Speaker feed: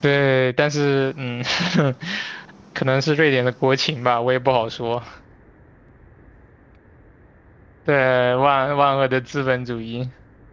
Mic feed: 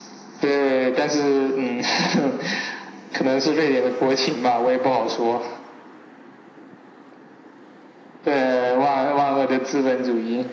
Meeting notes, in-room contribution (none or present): none